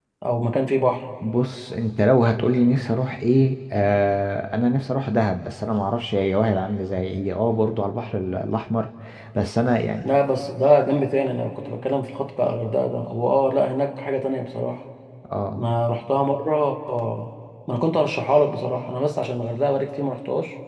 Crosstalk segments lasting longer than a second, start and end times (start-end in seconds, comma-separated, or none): none